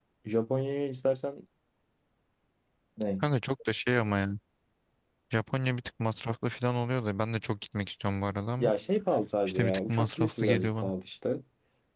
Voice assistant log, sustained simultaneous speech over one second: present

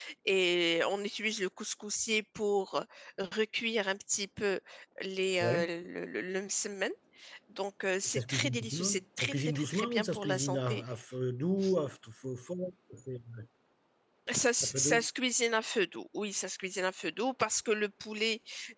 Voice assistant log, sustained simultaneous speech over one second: present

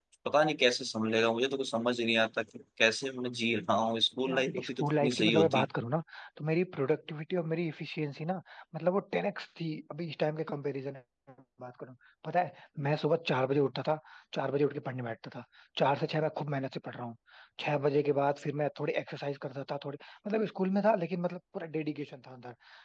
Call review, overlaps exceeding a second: present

